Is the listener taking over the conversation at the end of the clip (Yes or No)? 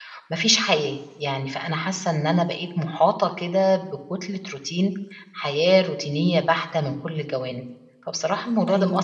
No